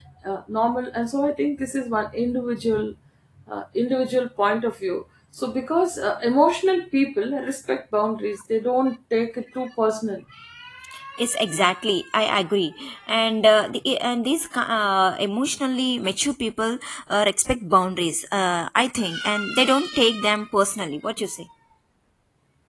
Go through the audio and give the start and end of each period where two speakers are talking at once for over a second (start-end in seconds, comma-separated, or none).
none